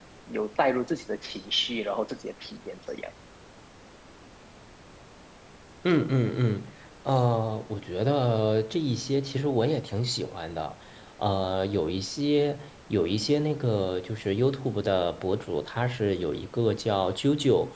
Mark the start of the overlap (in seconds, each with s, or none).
none